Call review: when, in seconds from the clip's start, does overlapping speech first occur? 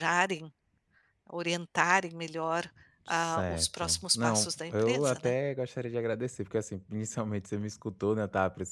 3.1 s

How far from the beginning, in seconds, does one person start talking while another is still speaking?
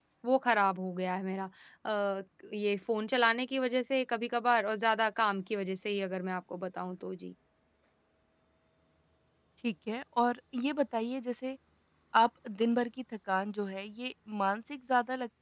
none

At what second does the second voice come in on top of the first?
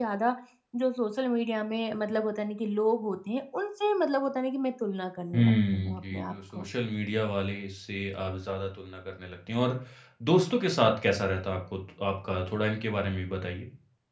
5.3 s

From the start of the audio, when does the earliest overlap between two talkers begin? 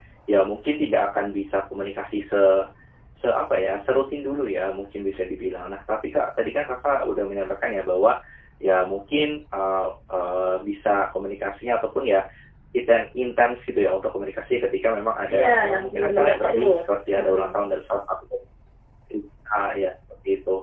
15.3 s

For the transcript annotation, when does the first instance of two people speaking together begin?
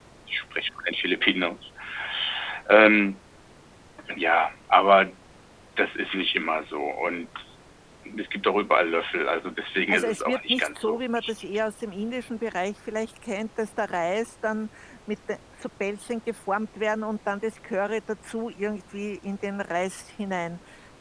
9.9 s

